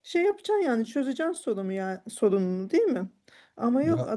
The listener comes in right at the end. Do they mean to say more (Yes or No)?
No